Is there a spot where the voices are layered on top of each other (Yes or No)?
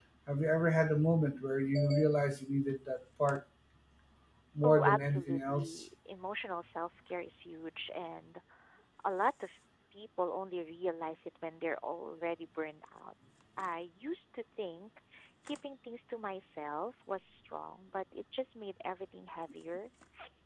Yes